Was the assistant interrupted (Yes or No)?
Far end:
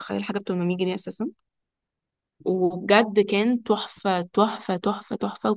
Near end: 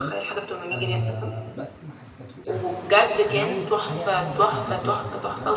Yes